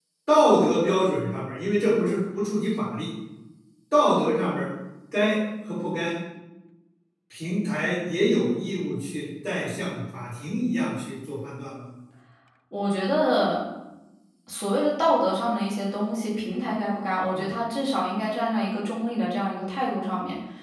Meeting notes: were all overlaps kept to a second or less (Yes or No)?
Yes